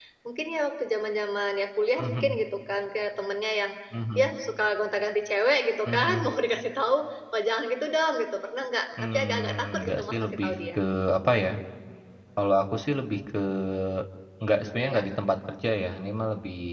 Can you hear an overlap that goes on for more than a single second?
Yes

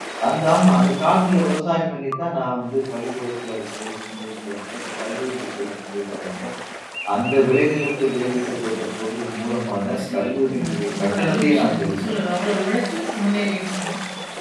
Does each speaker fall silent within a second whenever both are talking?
No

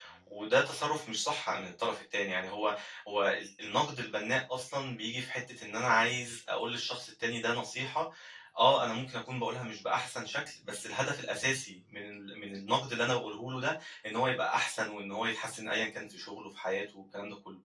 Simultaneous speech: No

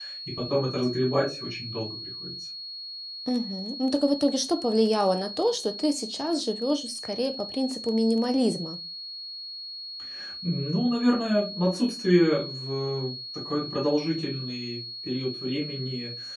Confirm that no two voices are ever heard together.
Yes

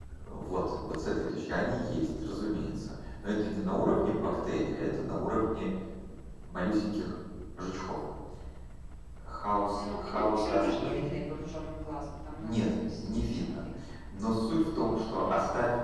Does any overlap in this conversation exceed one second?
Yes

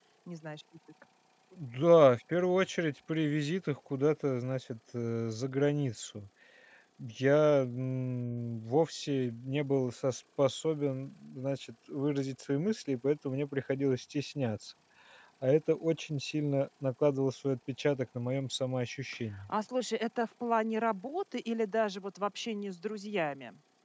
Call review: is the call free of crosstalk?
Yes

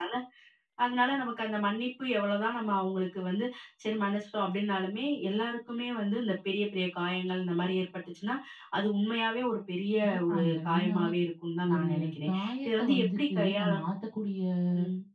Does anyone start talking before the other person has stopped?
Yes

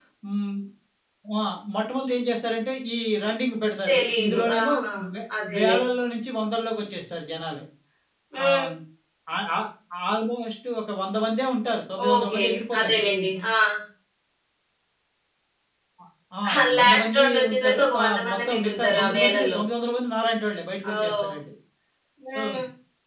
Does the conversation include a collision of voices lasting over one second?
Yes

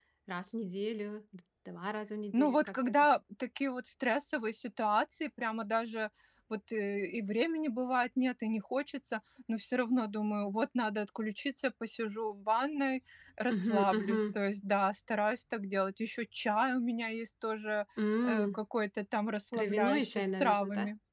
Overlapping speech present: Yes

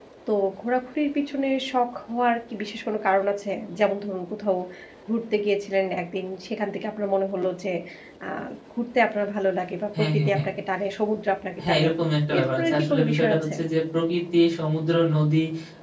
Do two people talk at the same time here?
Yes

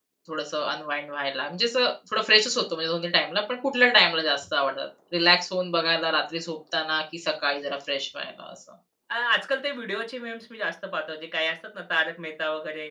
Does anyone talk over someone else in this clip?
No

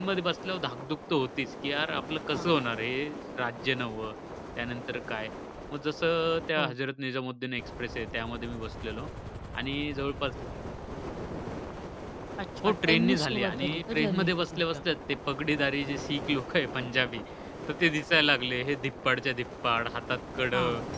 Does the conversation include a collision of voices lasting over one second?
Yes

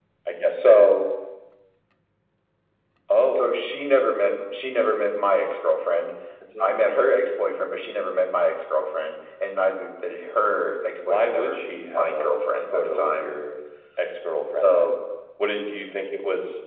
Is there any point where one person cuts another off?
Yes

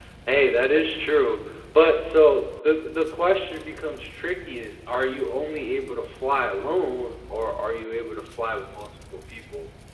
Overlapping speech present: No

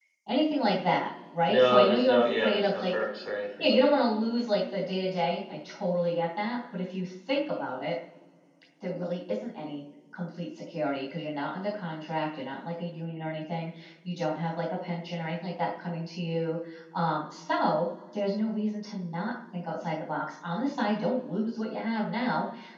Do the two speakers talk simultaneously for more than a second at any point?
Yes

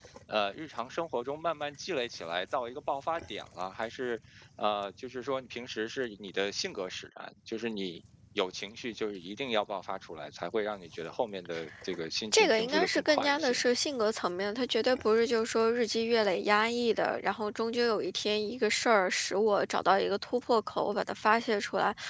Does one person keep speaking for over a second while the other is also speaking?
Yes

